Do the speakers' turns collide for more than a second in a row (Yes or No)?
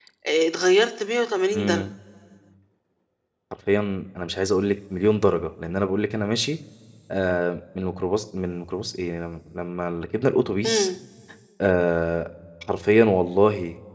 No